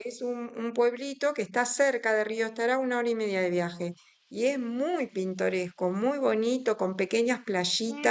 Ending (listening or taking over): taking over